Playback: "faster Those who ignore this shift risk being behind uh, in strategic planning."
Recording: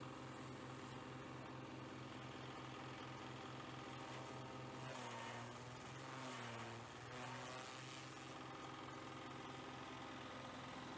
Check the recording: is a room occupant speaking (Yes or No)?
No